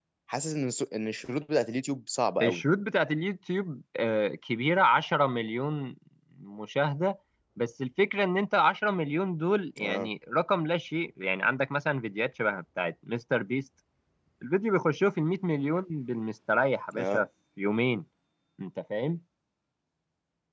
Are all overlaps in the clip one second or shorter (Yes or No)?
Yes